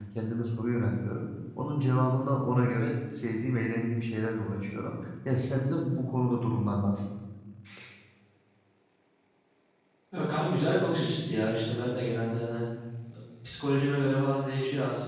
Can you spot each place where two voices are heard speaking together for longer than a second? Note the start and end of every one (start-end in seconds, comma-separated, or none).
none